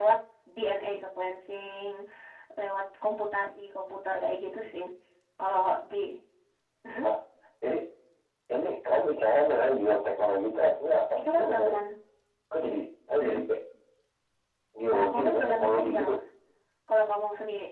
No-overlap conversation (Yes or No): No